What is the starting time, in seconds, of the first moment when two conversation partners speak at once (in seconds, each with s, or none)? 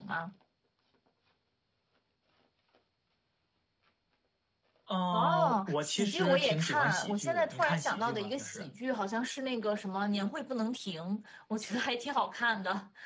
5.1 s